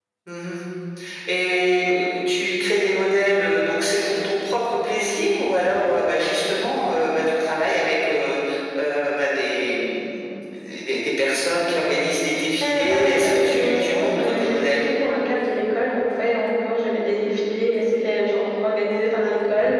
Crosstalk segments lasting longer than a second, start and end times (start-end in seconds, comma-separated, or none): 12.6-14.9